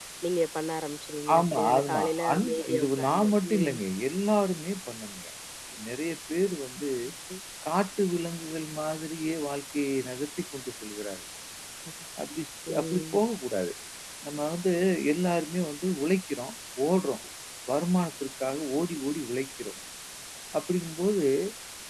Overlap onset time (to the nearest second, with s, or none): 1 s